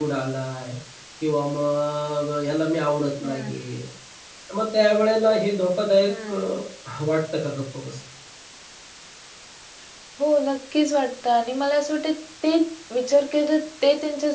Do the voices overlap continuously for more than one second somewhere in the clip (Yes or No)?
No